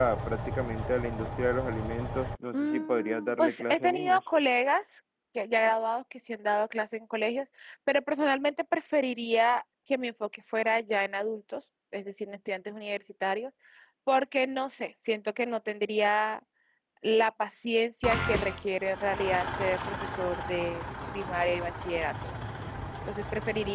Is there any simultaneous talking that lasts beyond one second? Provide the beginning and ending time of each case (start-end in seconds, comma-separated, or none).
2.5-4.2